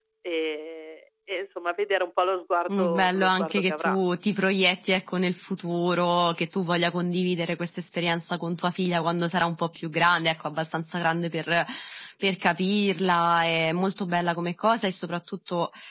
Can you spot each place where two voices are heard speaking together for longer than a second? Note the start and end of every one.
2.7-4.0

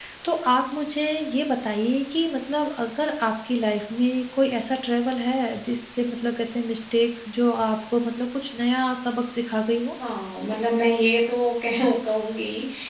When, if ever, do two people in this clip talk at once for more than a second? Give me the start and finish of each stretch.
none

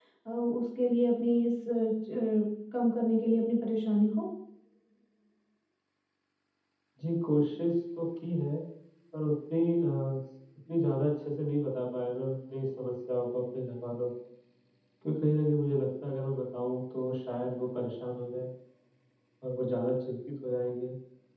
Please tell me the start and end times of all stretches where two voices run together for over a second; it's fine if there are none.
none

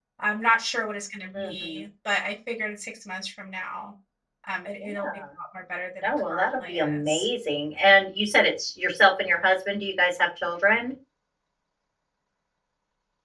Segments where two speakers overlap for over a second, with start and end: 6.0-7.2

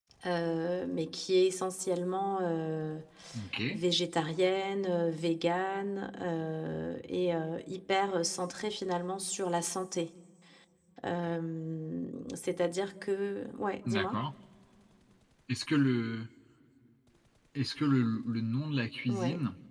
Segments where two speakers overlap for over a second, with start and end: none

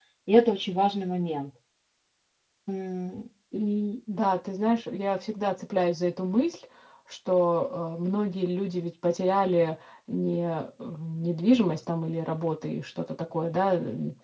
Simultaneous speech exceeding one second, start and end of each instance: none

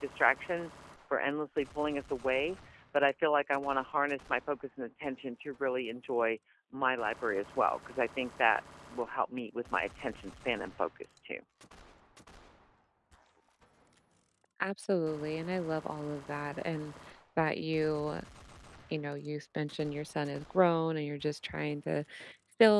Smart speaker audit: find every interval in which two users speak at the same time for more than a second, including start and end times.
none

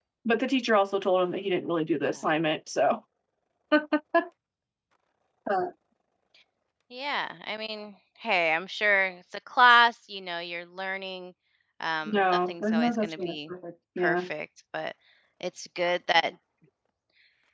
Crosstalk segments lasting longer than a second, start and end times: 12.1-13.5

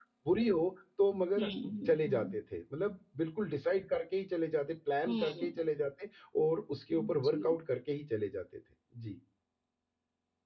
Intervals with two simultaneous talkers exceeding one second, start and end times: none

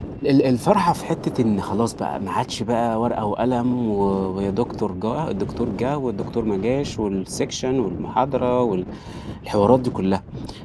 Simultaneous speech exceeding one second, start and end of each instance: none

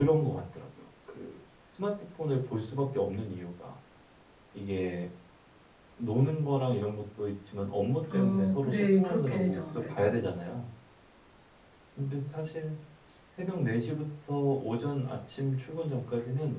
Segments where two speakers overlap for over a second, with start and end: 8.1-10.1

